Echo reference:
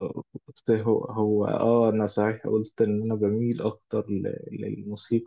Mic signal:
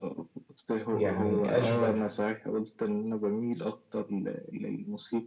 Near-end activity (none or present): present